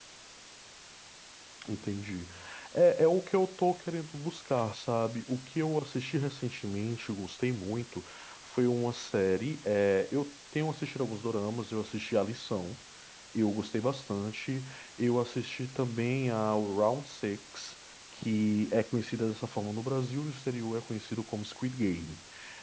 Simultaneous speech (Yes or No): No